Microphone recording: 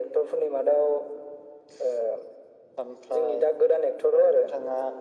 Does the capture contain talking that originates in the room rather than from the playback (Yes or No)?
No